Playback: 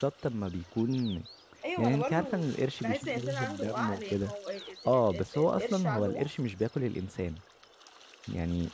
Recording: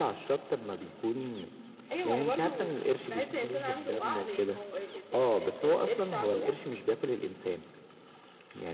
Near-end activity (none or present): none